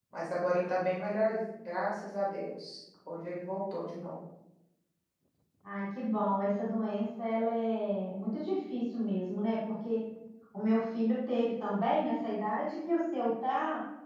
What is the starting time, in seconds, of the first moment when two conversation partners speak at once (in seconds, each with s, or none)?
none